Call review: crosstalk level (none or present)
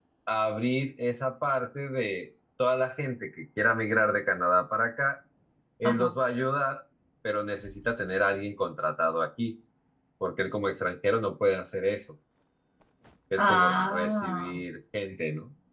present